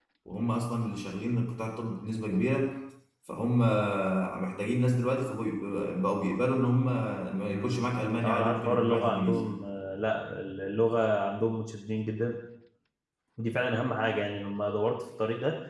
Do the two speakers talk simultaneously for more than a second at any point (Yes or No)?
Yes